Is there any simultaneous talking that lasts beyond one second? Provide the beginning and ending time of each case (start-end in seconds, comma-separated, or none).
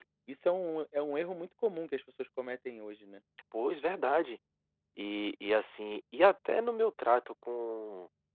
none